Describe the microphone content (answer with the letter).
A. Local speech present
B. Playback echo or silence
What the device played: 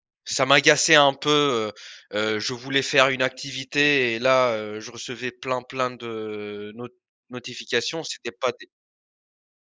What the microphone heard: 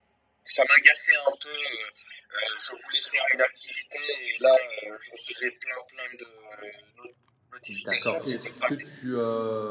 A